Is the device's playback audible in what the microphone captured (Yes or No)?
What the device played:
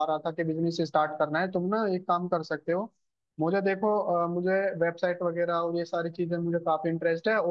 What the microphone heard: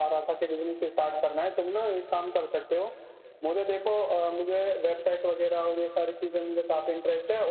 Yes